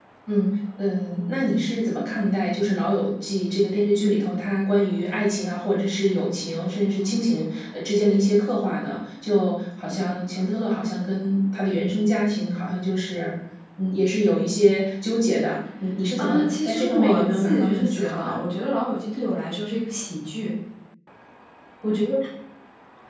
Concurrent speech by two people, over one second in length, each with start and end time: 16.2-18.4

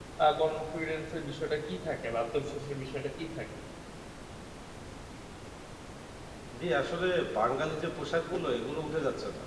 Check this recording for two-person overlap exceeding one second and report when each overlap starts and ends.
none

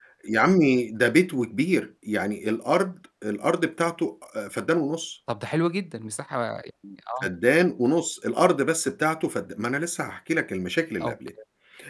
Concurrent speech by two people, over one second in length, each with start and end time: none

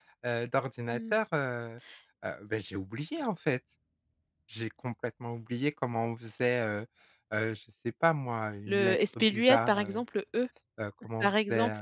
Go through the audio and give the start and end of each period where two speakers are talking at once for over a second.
8.7-10.0

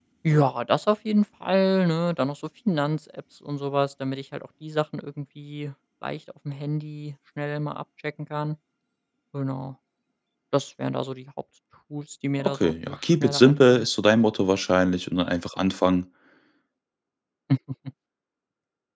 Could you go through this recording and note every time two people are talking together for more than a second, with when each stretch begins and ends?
12.4-13.9

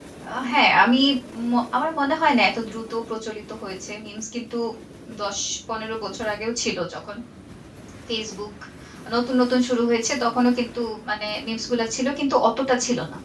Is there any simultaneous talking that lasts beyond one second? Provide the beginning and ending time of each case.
none

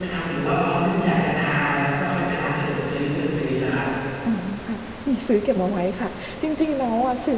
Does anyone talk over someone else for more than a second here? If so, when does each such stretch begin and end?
none

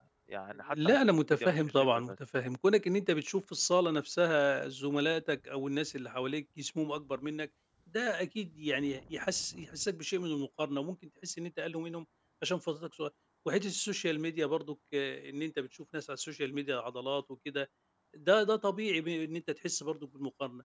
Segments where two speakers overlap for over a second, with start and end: 0.7-2.1

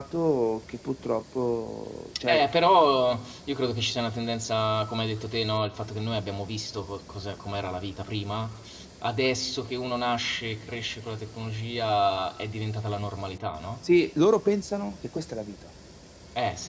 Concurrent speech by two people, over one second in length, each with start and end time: none

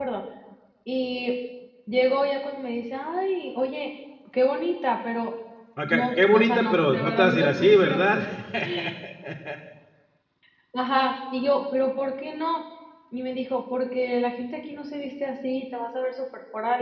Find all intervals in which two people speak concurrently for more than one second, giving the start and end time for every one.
5.8-8.2

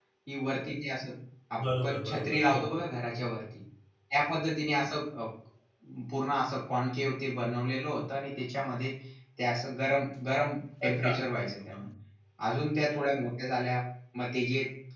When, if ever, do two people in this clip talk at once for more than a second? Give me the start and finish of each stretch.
1.6-2.8

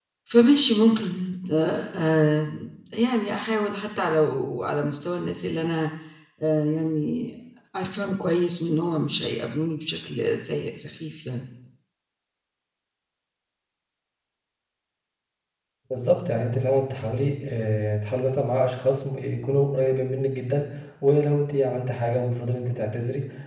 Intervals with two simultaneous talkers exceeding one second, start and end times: none

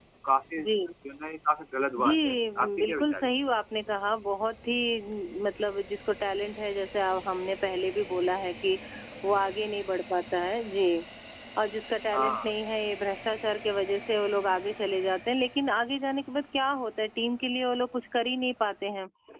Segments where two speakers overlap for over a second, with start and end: 2.0-3.3

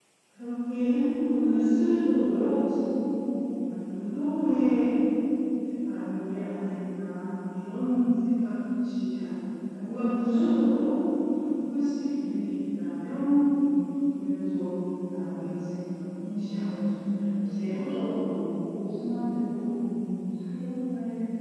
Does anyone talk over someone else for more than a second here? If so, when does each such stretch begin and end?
16.2-17.7

